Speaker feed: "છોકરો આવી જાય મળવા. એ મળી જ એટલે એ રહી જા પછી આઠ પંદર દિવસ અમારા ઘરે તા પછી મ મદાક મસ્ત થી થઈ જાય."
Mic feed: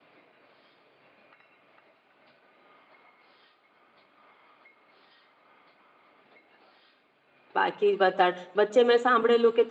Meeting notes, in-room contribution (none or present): present